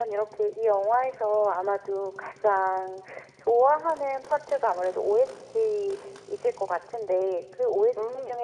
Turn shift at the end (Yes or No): No